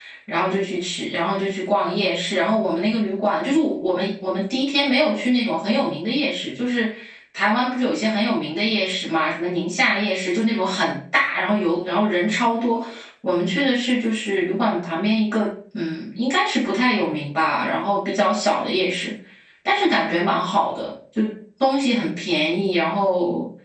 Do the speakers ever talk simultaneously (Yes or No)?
No